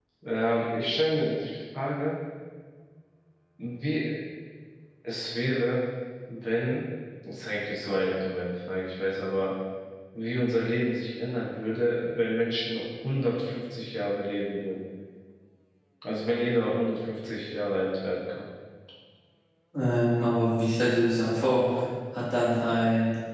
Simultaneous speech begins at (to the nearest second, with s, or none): none